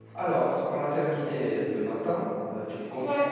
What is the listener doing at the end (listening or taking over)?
listening